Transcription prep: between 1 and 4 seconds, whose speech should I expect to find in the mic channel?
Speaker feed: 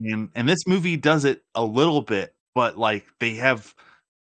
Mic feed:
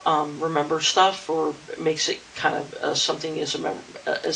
user only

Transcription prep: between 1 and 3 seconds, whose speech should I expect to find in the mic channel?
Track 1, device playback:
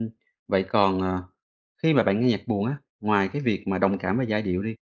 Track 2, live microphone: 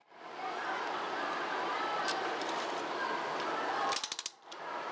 neither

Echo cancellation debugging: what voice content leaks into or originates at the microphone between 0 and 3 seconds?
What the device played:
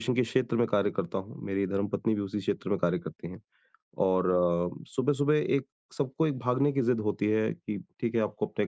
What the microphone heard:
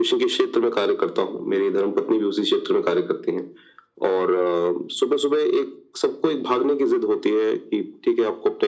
echo only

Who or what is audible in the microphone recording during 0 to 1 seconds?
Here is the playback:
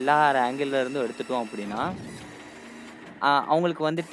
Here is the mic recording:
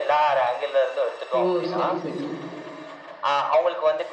echo only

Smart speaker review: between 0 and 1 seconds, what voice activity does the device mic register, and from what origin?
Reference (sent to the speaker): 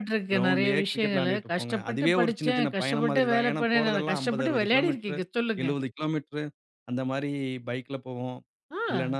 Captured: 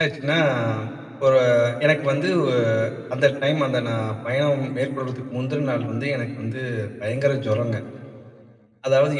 user only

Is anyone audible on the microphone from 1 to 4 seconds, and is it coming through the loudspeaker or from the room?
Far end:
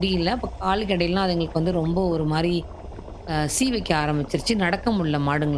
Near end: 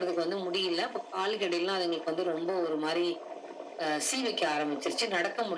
echo only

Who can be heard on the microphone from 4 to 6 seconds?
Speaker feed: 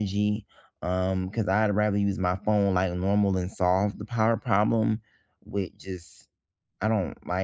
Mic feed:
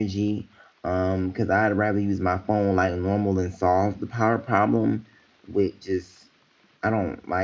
echo only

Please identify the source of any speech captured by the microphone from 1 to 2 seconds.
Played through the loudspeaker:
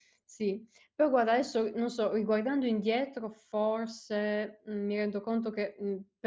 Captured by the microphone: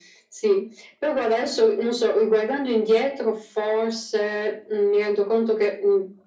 echo only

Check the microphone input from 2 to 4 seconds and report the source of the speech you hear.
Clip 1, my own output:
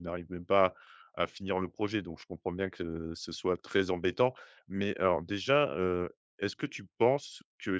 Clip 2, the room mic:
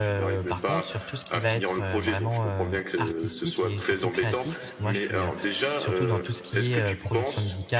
both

